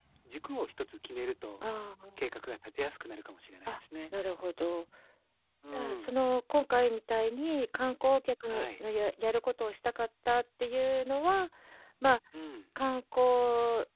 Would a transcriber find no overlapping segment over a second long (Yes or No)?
Yes